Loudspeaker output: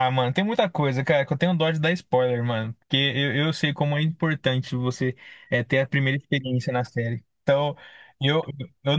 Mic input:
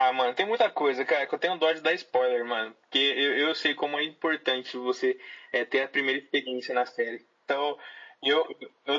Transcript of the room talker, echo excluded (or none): none